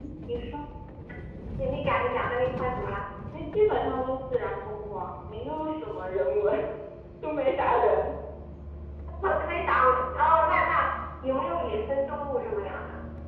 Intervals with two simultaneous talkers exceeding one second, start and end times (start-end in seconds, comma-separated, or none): none